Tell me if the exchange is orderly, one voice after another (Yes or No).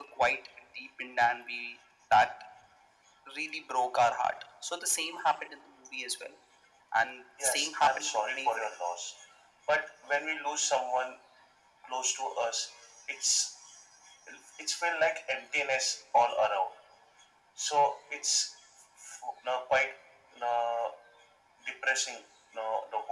No